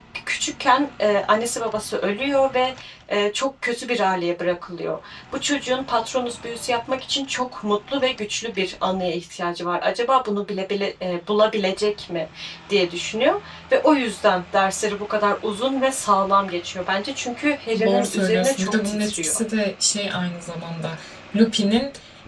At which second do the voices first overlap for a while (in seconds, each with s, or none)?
17.8 s